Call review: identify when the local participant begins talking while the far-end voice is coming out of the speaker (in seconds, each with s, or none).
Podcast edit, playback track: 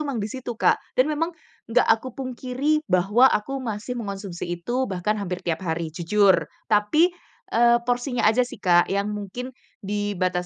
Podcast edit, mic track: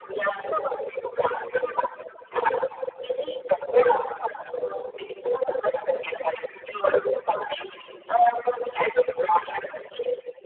none